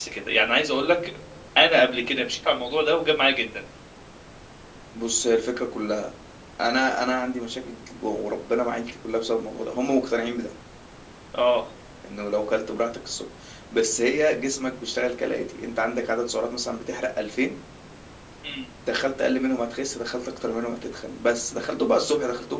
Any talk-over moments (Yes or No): No